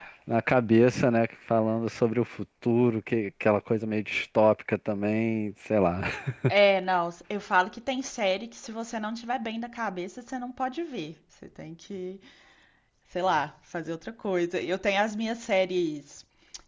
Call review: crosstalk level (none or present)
none